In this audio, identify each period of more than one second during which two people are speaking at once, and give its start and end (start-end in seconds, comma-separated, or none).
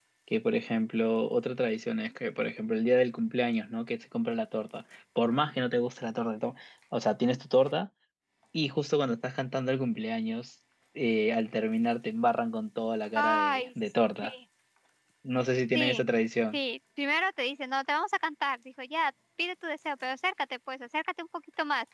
none